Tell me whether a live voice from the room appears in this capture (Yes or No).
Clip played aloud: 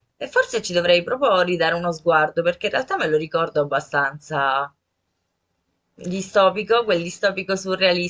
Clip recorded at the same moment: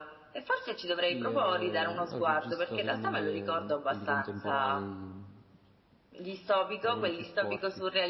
Yes